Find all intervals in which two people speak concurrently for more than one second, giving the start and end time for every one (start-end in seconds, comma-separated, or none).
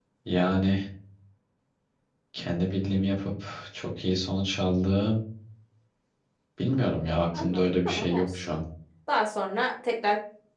7.3-8.5